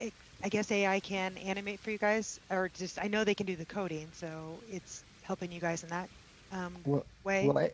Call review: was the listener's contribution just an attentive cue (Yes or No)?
No